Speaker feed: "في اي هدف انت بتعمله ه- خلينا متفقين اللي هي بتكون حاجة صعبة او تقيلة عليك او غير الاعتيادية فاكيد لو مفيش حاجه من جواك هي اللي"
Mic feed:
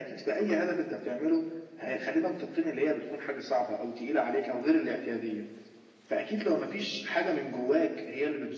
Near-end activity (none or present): none